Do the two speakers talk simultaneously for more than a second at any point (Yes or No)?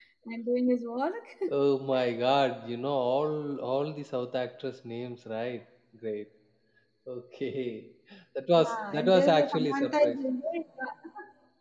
Yes